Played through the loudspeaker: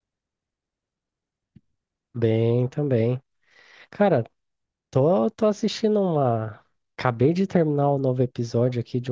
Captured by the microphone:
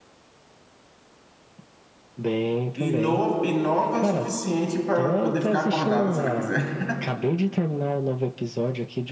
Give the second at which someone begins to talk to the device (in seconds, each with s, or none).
2.8 s